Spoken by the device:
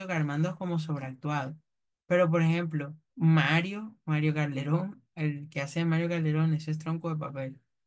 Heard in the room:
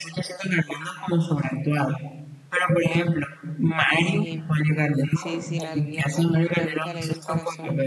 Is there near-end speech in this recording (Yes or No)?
Yes